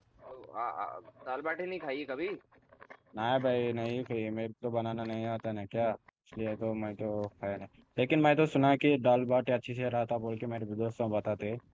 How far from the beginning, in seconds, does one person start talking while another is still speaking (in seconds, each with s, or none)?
none